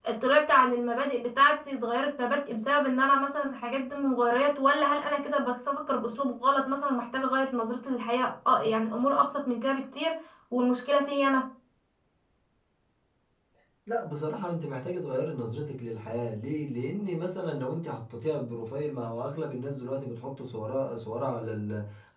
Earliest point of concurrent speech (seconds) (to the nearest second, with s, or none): none